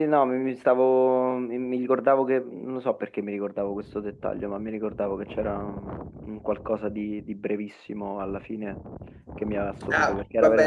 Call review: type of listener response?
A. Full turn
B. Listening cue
A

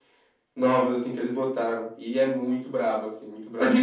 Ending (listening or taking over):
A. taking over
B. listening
A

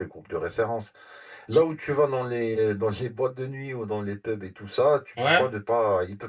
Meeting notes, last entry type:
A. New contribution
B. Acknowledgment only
B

